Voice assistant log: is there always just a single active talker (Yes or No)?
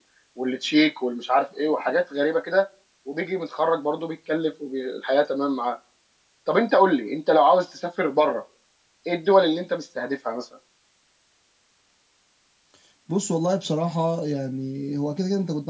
Yes